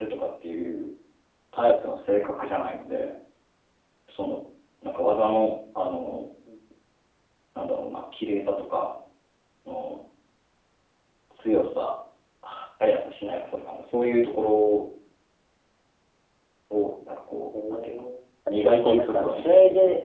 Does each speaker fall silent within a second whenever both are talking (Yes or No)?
No